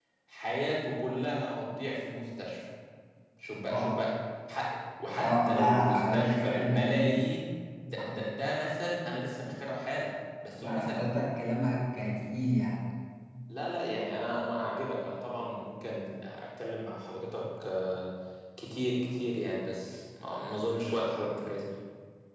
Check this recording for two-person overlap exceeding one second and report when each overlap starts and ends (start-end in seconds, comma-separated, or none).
5.2-7.2